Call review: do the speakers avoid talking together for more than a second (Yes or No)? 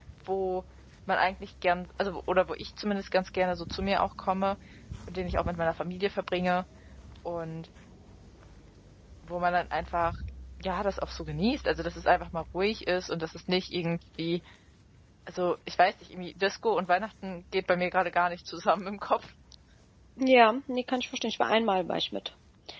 Yes